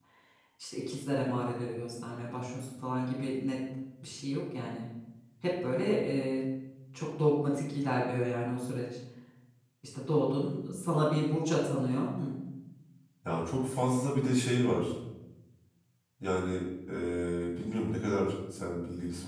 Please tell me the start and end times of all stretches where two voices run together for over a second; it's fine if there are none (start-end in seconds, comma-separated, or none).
none